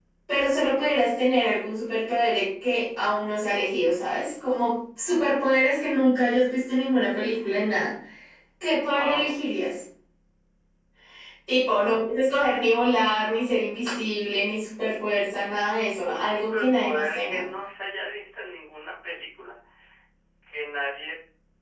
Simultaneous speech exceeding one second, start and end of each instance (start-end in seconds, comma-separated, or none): 16.0-17.4